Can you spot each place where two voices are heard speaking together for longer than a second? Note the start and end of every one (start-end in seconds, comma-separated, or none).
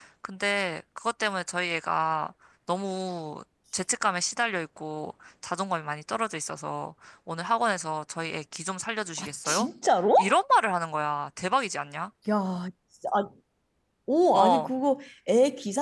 none